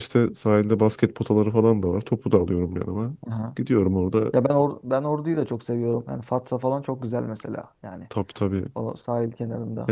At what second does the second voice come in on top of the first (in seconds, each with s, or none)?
none